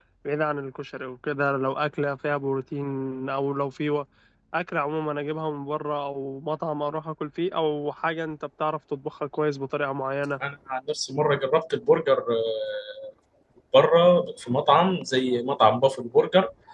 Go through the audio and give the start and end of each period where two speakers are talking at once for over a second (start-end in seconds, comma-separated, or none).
none